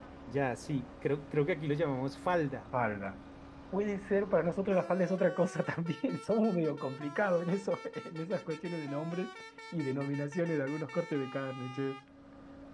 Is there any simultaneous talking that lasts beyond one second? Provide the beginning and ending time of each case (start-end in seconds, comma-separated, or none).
none